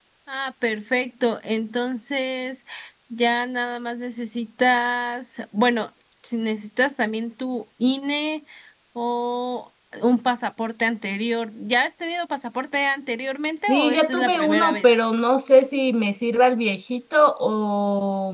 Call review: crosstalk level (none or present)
present